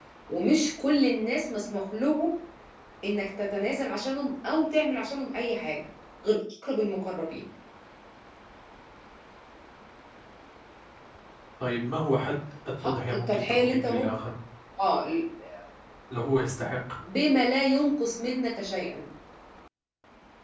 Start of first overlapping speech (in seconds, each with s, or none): 12.8 s